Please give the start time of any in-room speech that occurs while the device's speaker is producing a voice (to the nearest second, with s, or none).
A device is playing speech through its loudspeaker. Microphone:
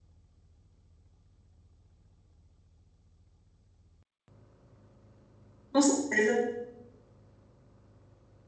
6 s